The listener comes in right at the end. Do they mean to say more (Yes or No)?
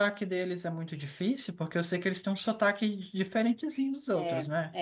Yes